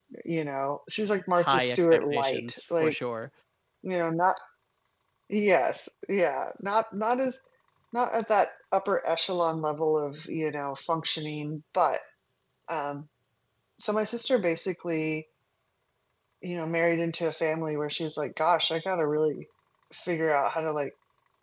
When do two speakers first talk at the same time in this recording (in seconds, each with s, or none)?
1.3 s